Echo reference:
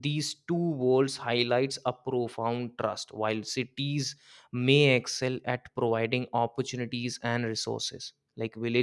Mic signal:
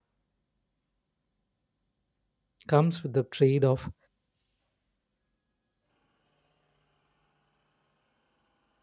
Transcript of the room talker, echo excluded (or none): comes with the trade-off